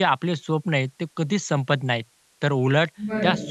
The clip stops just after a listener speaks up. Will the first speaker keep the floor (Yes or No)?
Yes